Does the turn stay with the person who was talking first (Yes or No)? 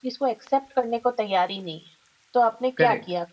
No